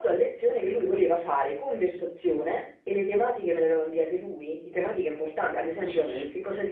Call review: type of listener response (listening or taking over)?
listening